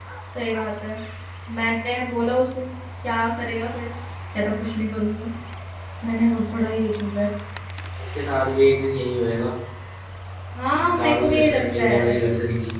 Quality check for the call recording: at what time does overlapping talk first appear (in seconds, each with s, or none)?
10.7 s